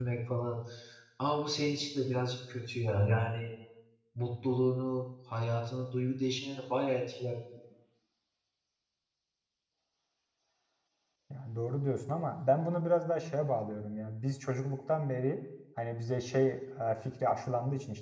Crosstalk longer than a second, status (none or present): none